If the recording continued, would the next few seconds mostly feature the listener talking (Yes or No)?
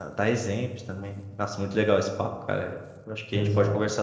No